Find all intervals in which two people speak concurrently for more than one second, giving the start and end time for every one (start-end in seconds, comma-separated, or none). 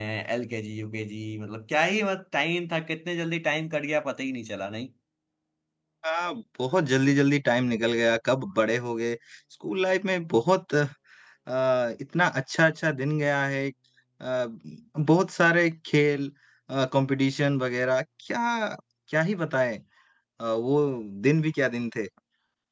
none